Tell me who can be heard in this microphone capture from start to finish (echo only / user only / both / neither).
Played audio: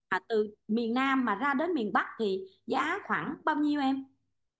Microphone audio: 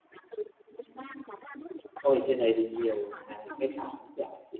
both